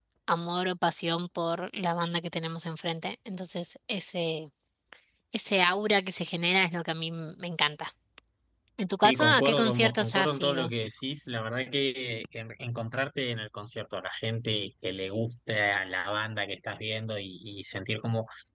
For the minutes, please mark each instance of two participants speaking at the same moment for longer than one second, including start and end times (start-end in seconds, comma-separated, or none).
9.0-10.7